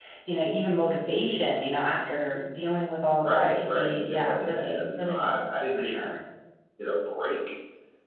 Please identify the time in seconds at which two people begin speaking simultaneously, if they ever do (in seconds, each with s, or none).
3.2 s